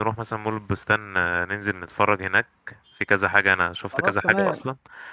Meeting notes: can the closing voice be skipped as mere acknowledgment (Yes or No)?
Yes